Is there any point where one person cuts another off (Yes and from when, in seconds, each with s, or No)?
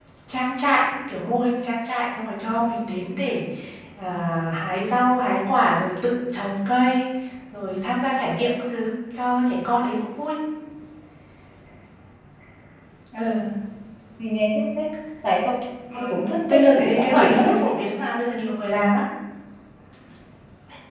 Yes, from 15.9 s